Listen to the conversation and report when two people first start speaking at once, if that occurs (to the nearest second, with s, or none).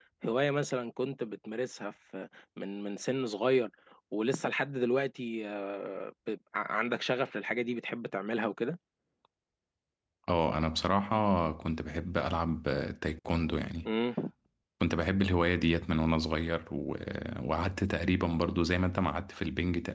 none